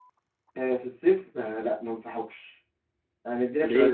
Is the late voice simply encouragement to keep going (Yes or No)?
Yes